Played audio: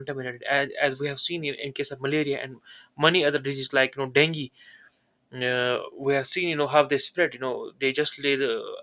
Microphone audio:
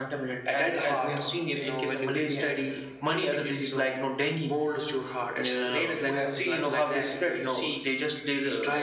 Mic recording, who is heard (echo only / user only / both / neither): both